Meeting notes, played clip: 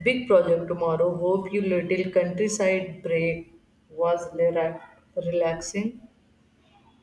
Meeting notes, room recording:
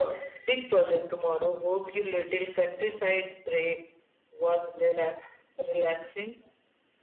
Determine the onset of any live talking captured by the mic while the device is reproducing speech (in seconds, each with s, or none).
none